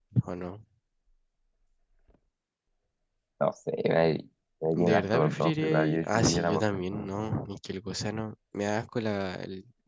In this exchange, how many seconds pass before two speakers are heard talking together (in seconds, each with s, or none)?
4.8 s